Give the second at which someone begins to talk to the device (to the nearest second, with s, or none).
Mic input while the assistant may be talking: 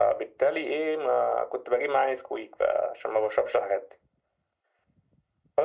none